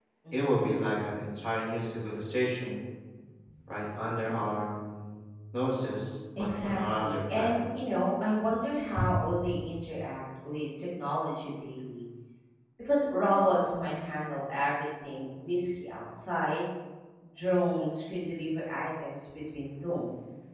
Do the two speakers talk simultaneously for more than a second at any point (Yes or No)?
Yes